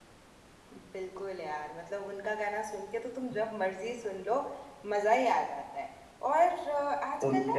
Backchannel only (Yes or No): Yes